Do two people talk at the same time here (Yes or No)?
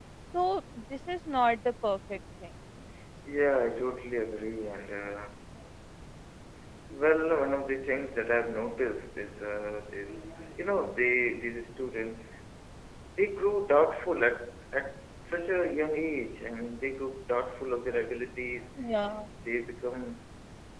No